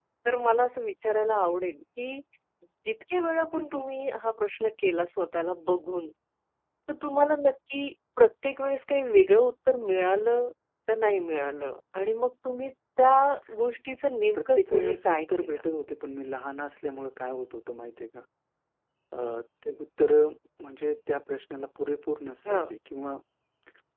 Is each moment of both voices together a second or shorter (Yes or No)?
No